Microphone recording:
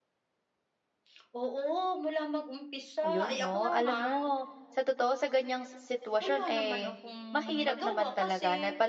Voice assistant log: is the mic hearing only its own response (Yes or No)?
No